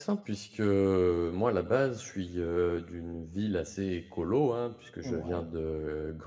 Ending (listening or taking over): listening